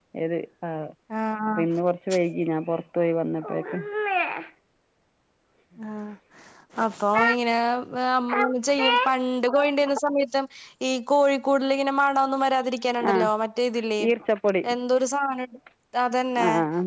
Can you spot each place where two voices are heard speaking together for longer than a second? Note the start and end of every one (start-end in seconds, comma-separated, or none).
none